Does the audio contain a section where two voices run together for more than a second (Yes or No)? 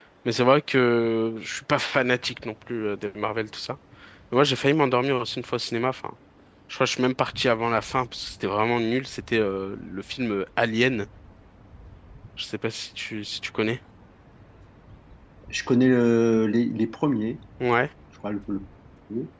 No